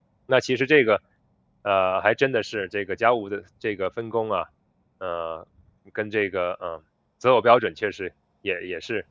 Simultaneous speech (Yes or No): No